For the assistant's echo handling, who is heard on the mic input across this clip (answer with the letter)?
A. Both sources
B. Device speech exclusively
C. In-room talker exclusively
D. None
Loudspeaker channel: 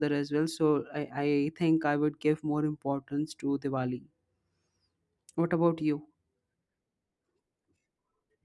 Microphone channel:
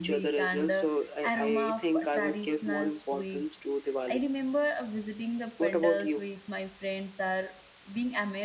A